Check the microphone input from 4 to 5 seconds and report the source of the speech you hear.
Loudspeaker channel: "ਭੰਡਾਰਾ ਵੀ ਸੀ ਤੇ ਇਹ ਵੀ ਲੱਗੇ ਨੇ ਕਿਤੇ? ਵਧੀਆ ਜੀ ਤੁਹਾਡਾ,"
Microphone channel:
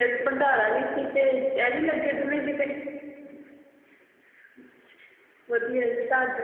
neither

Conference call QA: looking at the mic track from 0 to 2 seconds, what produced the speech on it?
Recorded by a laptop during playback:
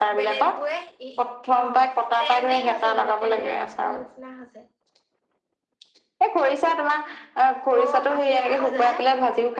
both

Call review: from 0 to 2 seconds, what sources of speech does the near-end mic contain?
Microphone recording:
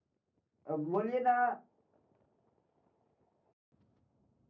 user only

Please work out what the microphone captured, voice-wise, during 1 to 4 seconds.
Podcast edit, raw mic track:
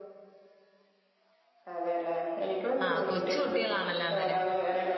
both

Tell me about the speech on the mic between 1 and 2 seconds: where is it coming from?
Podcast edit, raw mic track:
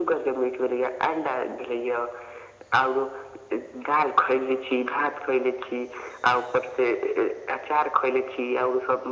echo only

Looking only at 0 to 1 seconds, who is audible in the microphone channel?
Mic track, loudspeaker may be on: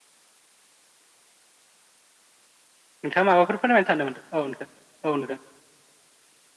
neither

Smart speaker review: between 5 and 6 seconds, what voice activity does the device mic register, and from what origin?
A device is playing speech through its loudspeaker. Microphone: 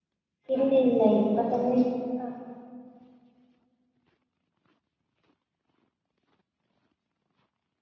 neither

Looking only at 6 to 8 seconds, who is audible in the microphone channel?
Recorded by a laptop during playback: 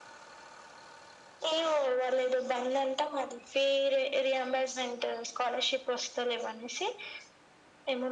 echo only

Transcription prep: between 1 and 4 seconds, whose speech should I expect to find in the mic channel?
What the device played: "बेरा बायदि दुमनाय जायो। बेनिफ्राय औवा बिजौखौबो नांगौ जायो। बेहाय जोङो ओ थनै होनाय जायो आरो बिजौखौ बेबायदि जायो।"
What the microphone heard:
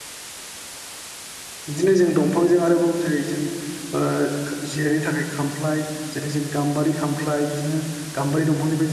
user only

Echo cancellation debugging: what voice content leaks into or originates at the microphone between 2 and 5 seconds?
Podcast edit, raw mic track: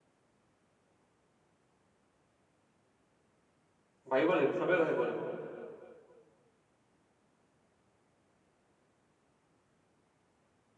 user only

